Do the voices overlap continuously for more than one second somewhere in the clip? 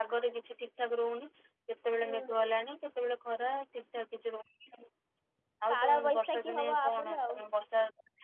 Yes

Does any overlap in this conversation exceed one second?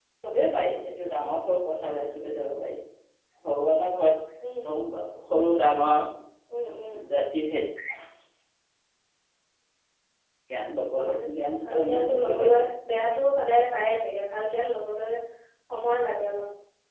Yes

